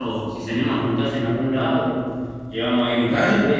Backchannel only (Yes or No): Yes